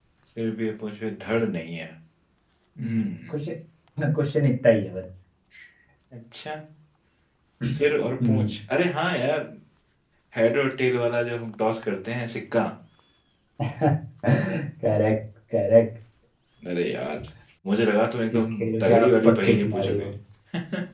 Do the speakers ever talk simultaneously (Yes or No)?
Yes